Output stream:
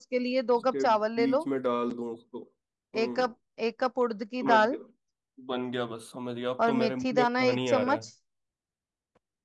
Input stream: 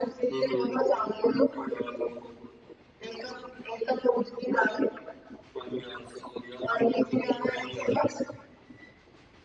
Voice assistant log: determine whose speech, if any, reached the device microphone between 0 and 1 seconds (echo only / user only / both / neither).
both